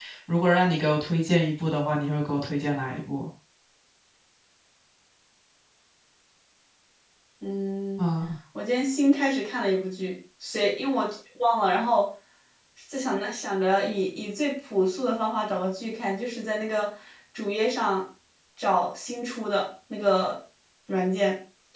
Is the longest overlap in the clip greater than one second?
No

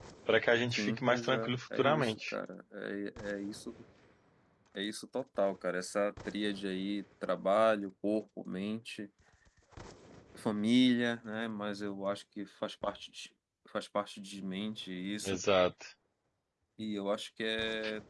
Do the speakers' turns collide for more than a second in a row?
Yes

